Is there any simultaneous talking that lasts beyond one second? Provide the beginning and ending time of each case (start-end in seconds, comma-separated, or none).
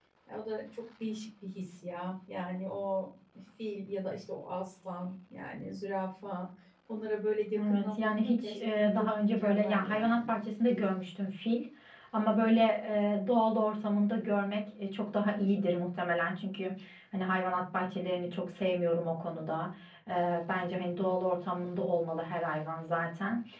7.6-10.3